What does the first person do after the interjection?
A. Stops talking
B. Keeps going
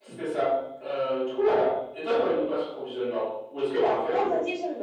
A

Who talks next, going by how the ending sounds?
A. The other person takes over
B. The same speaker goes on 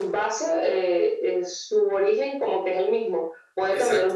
B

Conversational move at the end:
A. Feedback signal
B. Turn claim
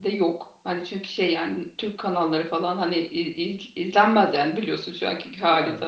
A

